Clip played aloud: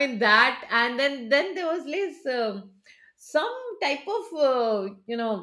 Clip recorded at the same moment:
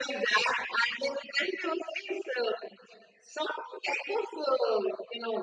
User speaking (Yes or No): No